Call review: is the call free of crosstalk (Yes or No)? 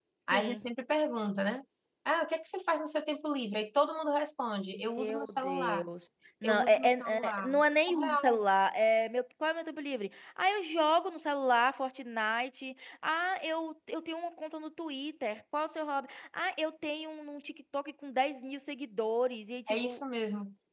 No